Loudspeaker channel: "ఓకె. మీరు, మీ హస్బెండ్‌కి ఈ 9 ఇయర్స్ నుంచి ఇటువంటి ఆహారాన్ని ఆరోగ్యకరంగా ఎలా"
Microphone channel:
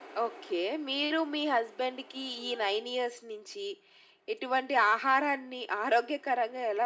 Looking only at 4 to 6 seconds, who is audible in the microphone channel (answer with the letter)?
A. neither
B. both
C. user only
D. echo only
D